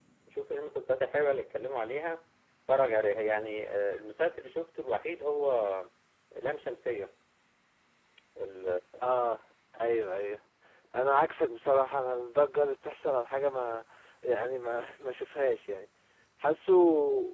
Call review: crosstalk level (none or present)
none